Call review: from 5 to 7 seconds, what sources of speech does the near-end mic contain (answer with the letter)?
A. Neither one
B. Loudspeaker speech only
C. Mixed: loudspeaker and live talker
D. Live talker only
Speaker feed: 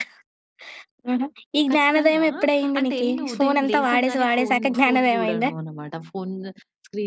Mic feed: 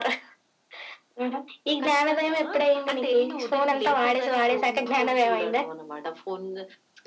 B